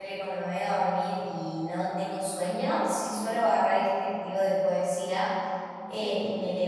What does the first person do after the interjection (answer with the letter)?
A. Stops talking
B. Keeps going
B